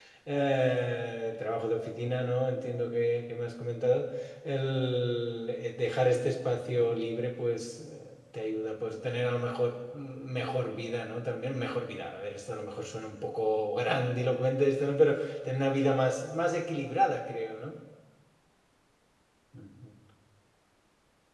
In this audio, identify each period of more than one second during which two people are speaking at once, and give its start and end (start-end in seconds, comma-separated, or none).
none